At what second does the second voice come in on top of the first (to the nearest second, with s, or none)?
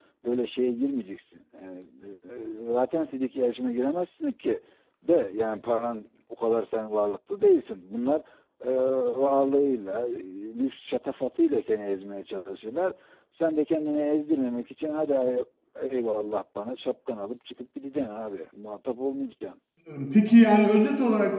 none